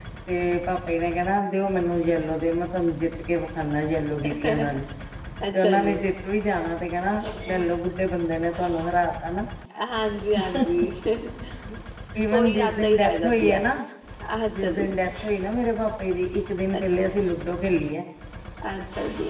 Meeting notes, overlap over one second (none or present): present